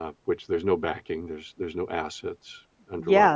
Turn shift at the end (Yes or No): Yes